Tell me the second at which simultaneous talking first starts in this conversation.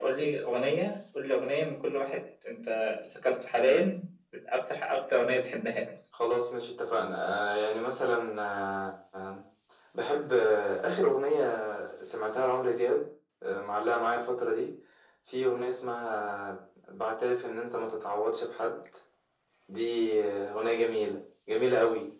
none

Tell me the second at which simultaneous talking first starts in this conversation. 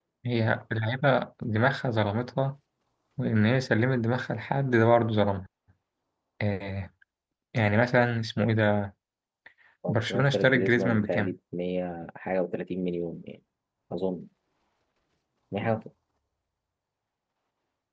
9.9 s

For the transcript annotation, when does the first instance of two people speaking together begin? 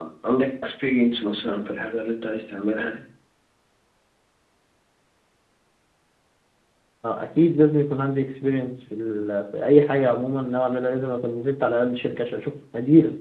none

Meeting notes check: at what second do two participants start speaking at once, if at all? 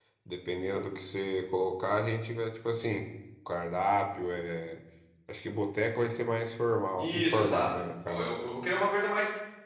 7.0 s

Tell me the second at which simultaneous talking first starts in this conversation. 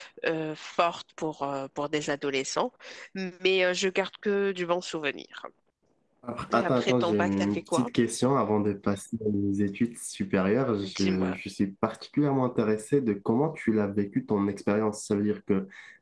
6.5 s

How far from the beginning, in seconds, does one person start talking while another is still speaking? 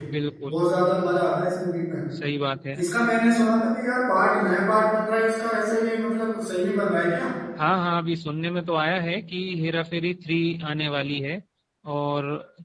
none

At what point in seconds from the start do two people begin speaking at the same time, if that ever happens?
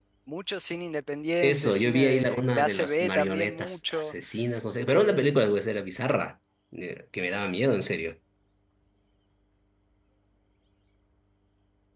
1.4 s

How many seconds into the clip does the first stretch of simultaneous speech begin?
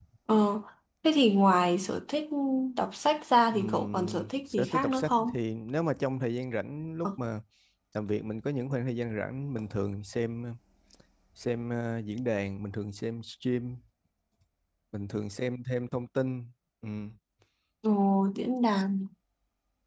3.5 s

